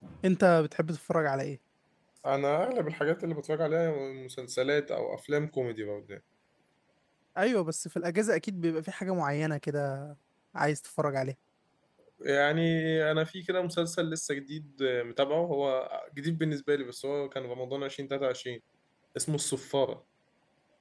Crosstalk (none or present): none